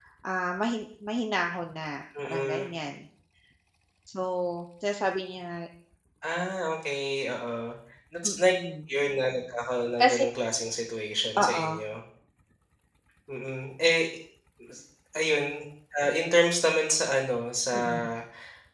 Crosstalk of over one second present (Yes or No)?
No